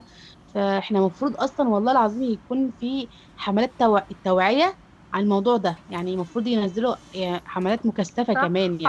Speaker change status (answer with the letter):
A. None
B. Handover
B